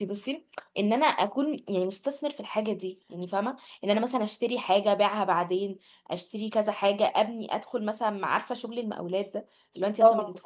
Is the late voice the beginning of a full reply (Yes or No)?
No